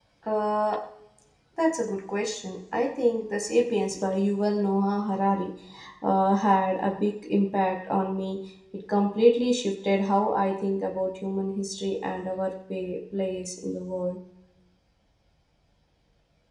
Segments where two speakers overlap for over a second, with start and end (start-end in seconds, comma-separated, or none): none